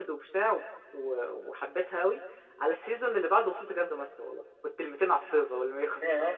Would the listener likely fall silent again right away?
Yes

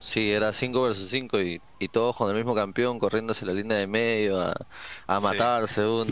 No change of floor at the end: Yes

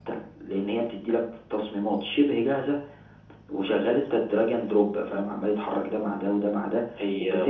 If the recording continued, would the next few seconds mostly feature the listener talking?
No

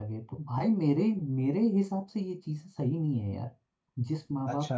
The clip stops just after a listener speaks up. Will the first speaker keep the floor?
No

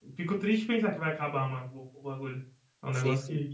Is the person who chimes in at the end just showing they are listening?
No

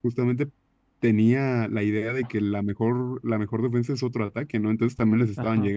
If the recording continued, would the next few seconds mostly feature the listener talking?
Yes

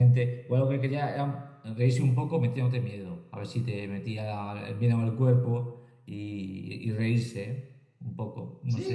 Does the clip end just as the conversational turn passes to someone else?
Yes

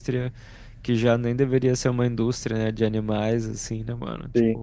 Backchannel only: No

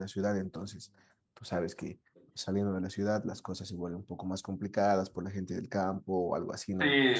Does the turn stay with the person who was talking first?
No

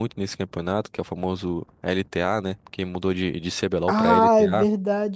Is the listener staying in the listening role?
No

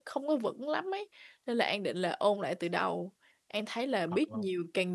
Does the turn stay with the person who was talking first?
Yes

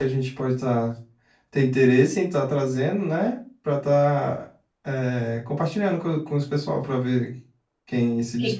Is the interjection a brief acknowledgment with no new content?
No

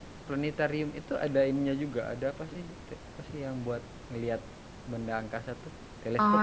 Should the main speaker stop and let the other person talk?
Yes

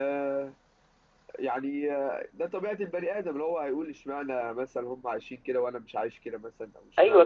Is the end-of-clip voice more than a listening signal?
Yes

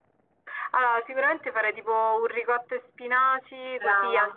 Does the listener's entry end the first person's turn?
No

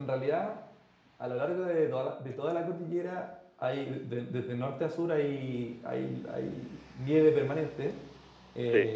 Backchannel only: Yes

